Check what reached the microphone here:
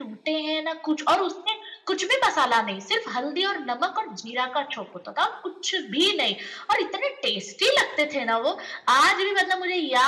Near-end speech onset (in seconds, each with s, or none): none